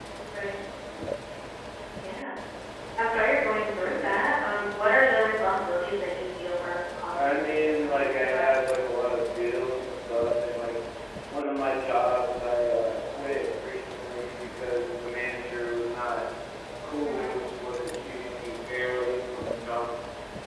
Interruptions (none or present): present